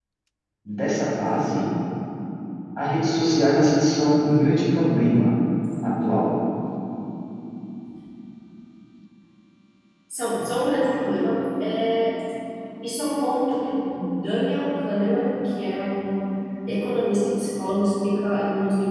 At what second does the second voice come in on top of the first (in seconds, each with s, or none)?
none